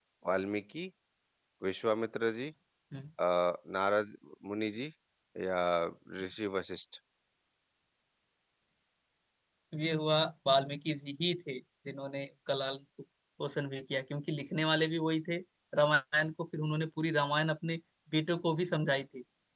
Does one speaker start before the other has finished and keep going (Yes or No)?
No